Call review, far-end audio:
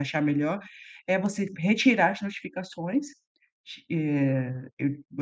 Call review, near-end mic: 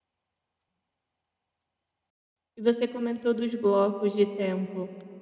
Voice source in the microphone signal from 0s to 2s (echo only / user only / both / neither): neither